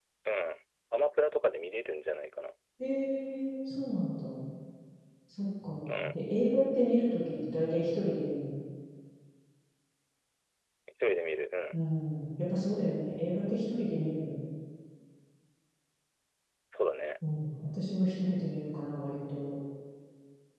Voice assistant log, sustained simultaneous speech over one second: none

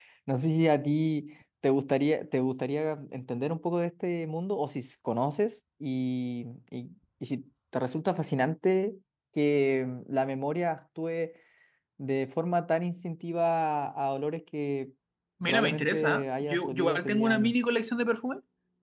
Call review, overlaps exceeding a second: present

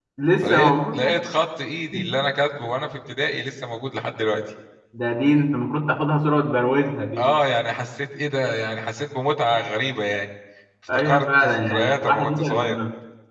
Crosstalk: present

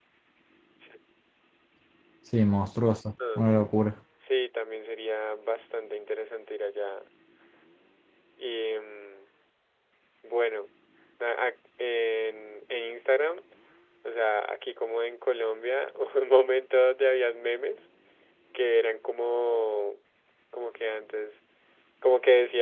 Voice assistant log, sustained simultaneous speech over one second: none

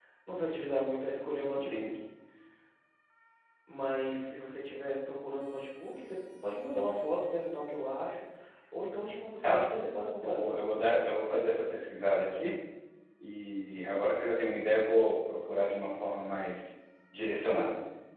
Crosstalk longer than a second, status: none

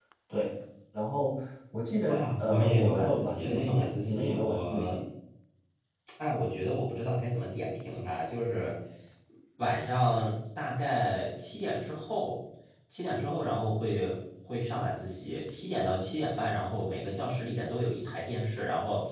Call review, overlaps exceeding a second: present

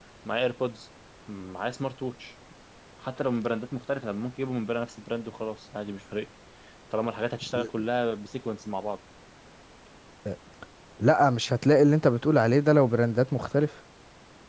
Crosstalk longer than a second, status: none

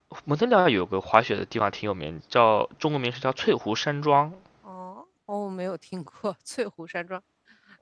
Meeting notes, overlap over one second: none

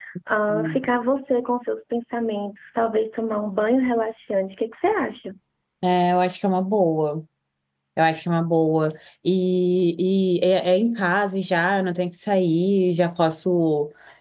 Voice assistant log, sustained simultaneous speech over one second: none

